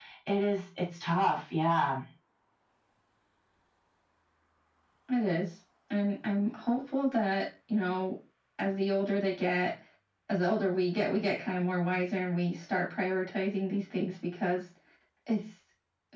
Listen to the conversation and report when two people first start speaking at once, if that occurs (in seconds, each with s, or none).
none